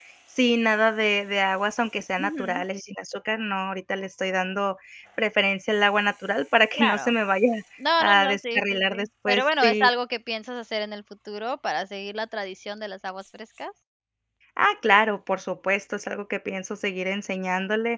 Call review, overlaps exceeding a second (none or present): present